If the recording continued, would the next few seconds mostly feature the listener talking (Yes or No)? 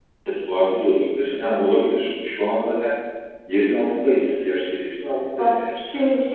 Yes